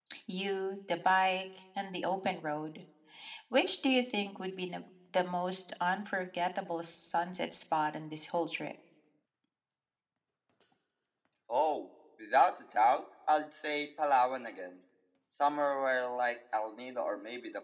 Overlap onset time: none

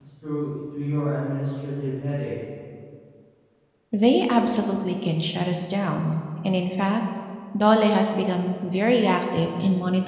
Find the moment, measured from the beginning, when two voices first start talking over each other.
none

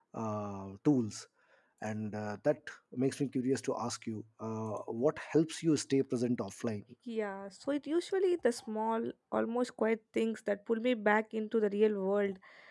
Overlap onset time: none

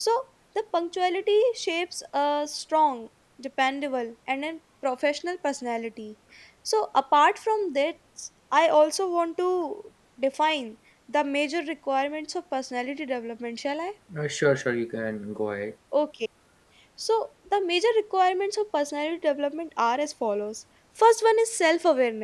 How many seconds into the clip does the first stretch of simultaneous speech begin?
none

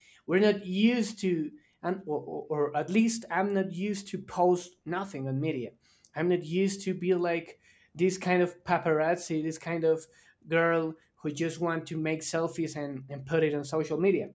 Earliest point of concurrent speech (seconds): none

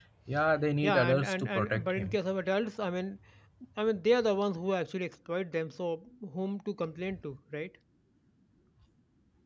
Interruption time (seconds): 0.8 s

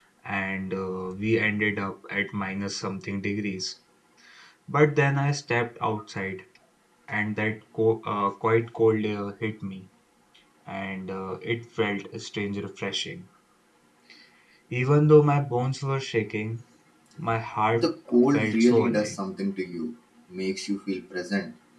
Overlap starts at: 17.7 s

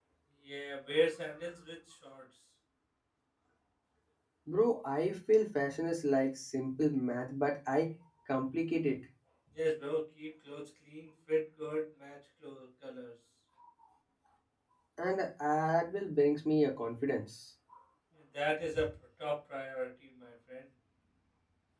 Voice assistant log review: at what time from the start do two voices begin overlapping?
none

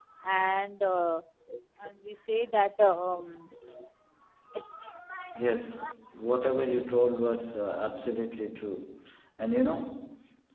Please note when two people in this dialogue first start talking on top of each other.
none

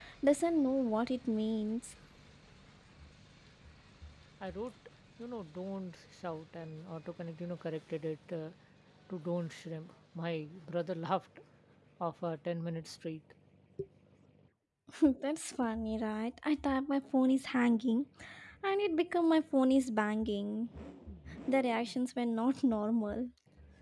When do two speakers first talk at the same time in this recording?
none

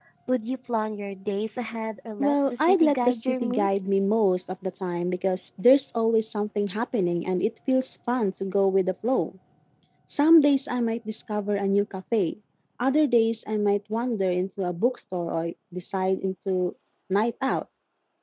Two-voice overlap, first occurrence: 2.2 s

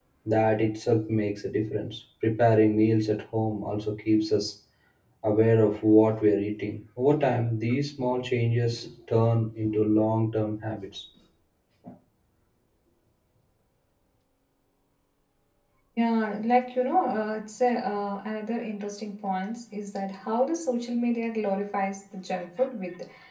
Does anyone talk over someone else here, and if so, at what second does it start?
none

